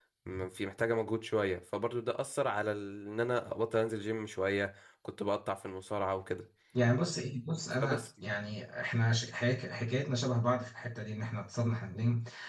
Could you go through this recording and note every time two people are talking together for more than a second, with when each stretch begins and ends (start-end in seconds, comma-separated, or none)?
none